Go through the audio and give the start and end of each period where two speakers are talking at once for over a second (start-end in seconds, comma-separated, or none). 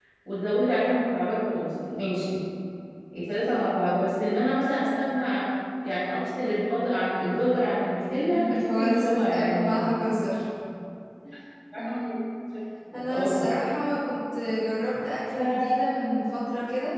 8.3-9.8